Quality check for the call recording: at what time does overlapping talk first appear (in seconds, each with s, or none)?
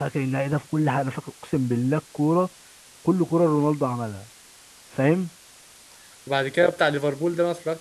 none